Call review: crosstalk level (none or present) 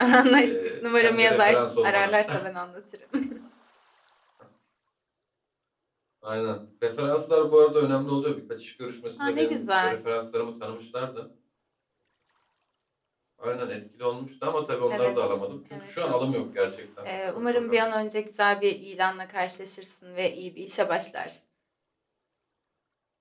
present